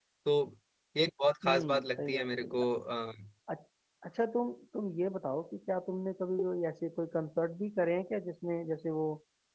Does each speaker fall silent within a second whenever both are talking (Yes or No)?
No